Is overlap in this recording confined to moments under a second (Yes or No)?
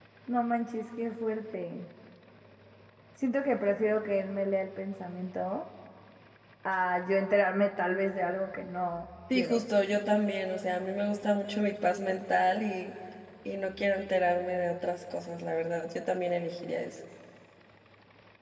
Yes